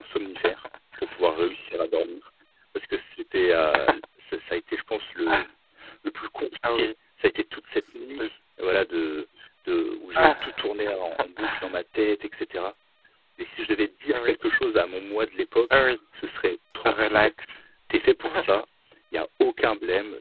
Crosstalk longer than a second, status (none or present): none